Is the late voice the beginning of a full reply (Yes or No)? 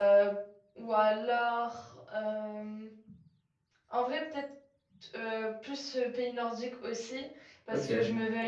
No